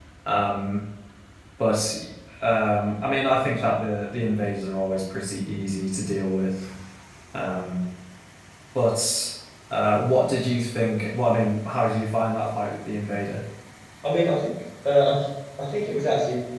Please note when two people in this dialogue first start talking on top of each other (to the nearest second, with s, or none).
none